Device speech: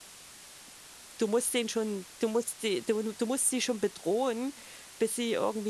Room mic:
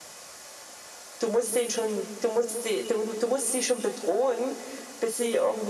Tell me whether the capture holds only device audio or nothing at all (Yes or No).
Yes